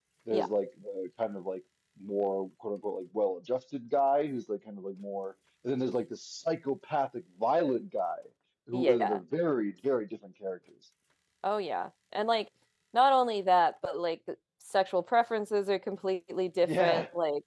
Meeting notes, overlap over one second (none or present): none